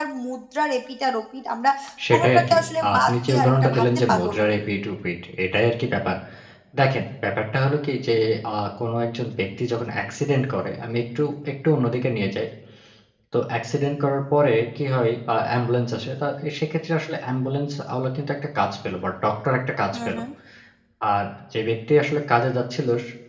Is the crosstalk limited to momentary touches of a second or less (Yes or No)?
No